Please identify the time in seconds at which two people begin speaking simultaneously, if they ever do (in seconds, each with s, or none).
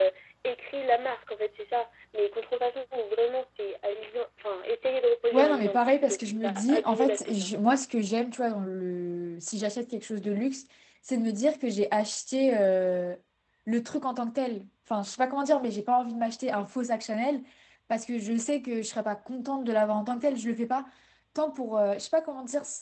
5.3 s